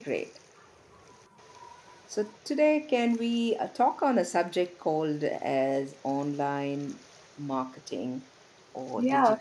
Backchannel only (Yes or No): Yes